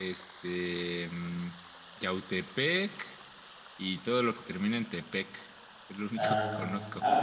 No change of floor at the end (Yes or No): No